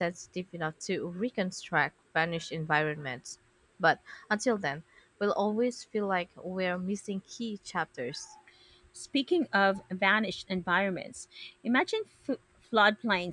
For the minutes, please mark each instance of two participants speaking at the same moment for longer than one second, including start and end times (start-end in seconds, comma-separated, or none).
none